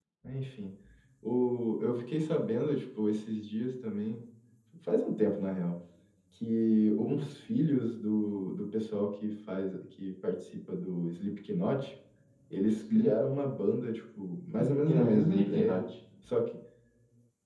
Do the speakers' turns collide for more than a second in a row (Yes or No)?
Yes